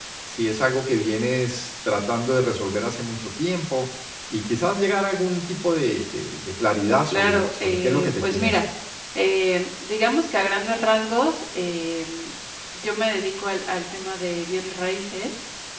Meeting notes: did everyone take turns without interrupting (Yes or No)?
No